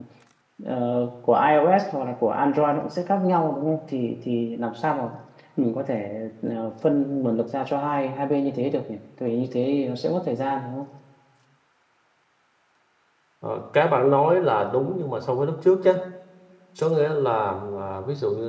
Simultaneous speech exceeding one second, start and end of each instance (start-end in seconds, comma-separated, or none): none